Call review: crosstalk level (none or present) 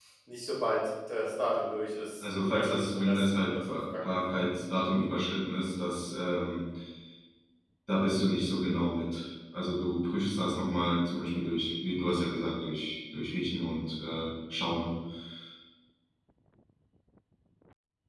present